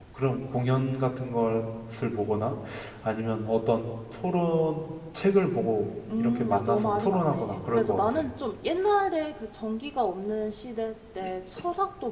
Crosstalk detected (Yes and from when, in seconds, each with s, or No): Yes, from 6.1 s